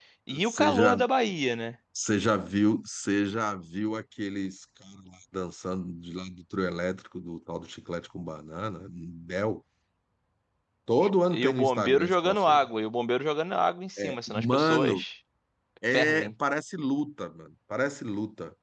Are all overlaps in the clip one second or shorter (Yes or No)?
No